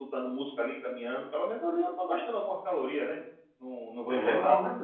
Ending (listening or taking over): taking over